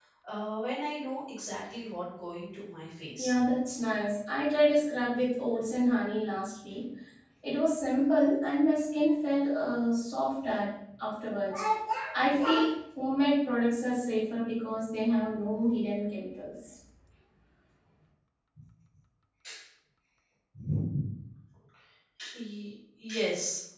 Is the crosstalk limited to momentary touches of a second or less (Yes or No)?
Yes